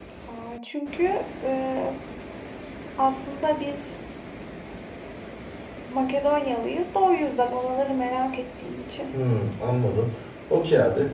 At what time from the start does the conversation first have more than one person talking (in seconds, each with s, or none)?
none